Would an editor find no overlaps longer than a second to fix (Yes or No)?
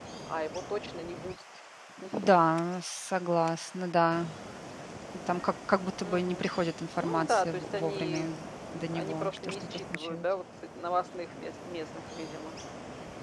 No